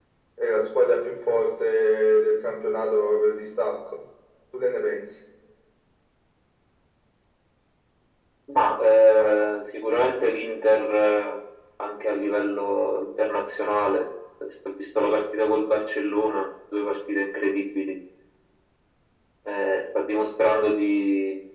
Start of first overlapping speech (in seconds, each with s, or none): none